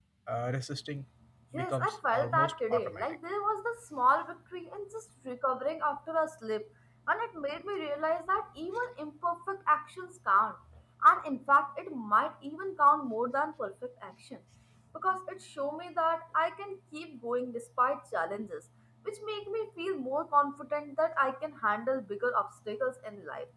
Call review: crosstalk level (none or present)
present